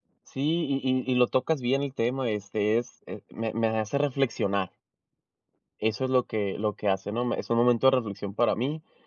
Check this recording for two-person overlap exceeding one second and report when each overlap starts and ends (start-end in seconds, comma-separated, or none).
none